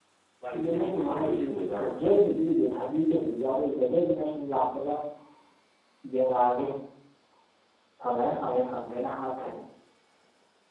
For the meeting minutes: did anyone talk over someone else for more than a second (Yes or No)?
Yes